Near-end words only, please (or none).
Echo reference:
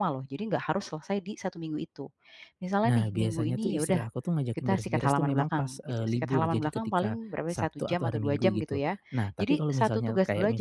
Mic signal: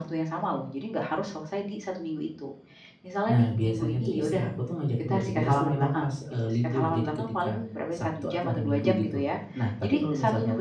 none